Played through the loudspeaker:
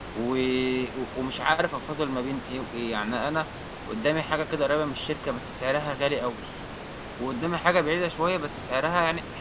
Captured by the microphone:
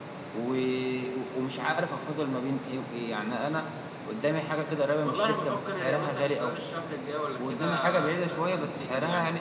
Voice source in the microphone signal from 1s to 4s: echo only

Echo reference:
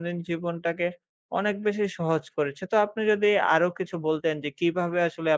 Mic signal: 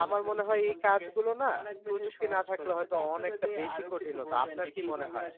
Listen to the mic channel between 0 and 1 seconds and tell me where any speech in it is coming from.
both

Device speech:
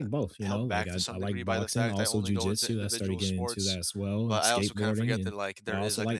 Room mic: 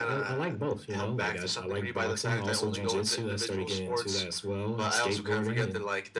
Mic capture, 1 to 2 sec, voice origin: echo only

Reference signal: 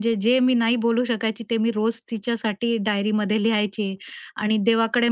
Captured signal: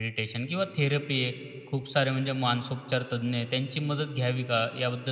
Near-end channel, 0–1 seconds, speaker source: user only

